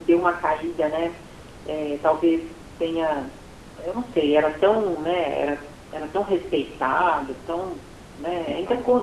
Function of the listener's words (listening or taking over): listening